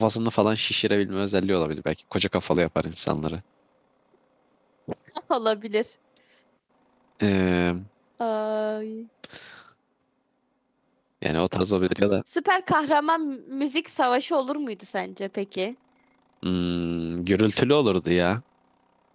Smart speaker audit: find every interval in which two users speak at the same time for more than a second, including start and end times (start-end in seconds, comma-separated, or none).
none